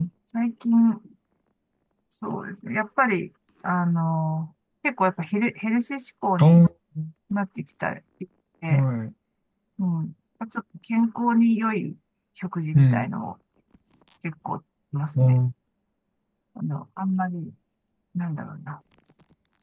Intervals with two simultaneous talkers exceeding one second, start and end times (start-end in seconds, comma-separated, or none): none